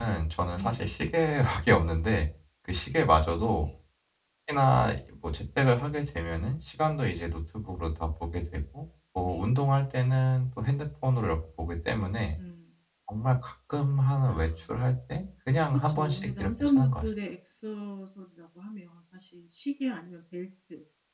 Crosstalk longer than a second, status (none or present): present